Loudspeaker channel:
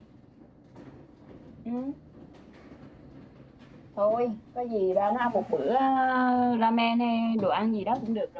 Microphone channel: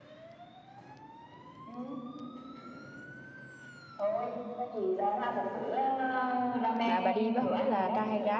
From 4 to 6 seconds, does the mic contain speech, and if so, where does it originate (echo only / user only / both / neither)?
echo only